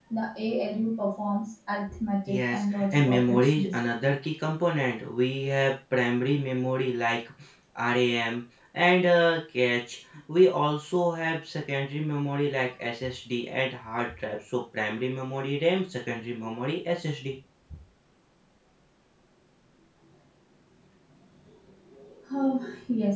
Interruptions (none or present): present